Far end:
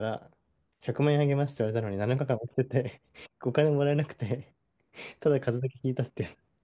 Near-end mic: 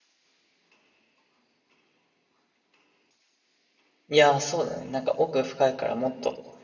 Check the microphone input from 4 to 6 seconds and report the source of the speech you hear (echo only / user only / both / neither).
user only